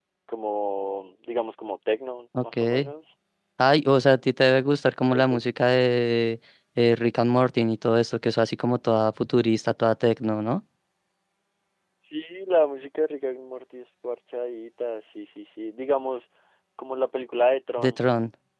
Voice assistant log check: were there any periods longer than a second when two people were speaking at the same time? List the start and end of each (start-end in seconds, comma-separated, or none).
none